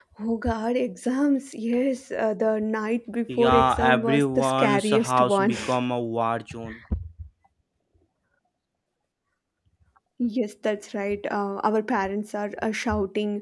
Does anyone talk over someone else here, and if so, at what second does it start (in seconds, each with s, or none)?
3.3 s